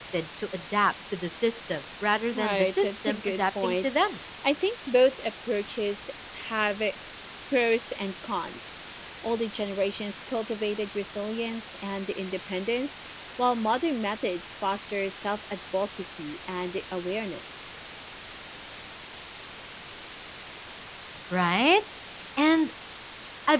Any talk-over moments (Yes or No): Yes